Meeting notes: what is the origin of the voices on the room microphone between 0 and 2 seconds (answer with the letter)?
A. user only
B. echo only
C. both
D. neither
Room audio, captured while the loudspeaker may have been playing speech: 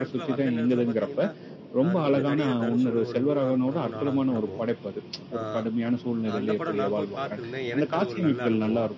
C